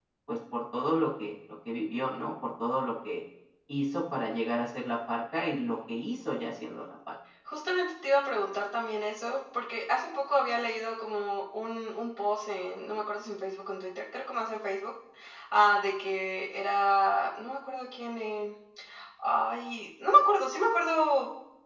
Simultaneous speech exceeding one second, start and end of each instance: none

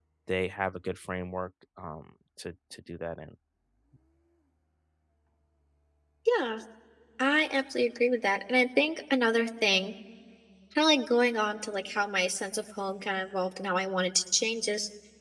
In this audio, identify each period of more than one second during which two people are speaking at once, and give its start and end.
none

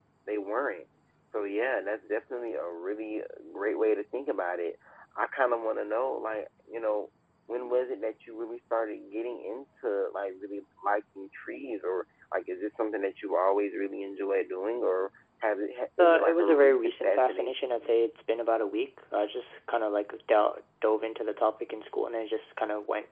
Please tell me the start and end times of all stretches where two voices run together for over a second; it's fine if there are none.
16.0-17.9

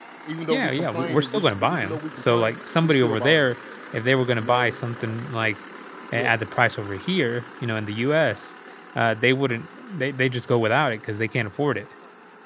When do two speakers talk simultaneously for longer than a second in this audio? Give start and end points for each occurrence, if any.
0.5-3.5

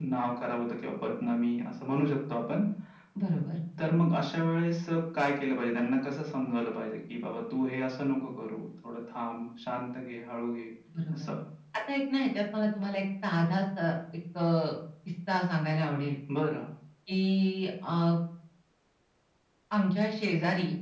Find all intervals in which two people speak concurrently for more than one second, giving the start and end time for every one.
none

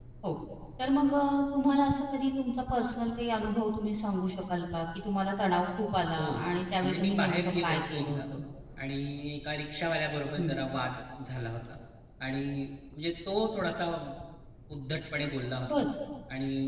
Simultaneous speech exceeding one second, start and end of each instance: 6.8-8.2

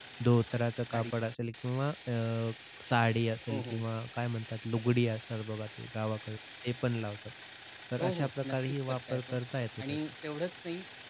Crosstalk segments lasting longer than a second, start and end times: 8.0-9.4

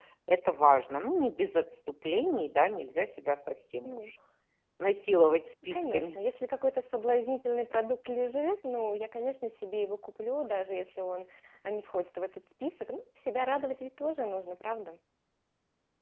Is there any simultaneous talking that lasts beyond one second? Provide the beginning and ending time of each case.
none

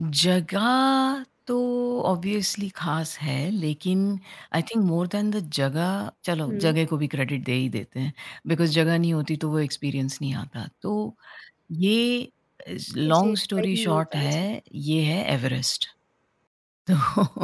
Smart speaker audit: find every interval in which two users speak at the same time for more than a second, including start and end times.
13.1-14.3

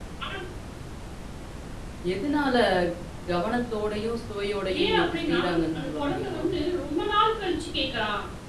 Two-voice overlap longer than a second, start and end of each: 4.8-6.4

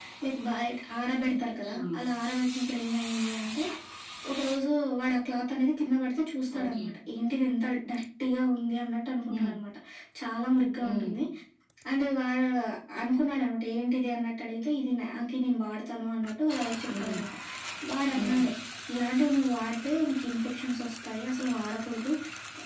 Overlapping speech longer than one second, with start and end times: none

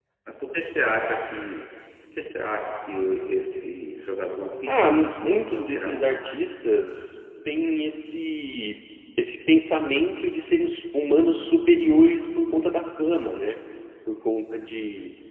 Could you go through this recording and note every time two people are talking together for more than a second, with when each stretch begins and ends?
4.7-6.1

